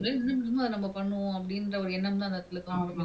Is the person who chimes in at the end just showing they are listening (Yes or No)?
No